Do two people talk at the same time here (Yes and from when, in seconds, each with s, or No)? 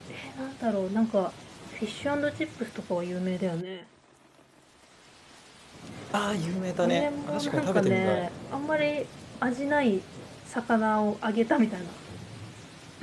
Yes, from 6.8 s